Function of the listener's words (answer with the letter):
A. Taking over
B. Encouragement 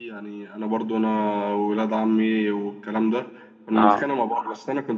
B